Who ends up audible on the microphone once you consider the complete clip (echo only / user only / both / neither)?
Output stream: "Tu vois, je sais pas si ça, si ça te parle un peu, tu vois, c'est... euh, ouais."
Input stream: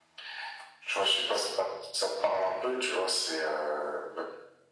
echo only